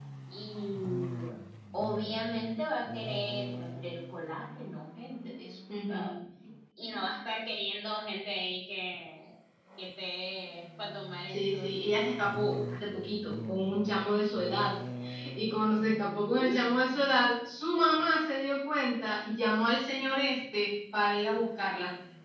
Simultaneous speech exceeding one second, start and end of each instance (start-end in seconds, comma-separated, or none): none